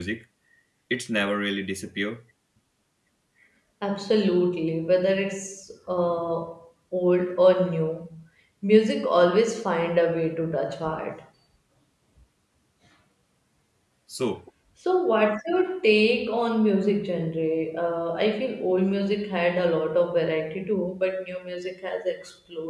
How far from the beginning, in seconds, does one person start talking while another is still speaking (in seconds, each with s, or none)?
none